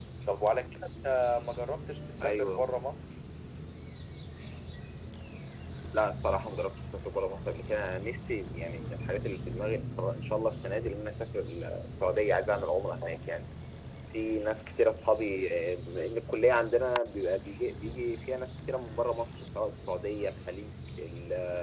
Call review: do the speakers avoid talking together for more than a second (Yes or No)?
Yes